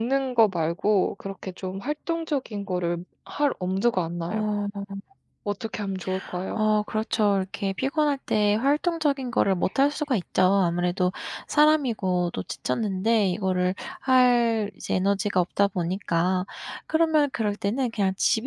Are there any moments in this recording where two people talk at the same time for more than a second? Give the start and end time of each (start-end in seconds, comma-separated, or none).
none